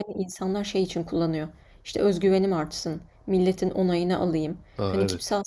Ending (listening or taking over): listening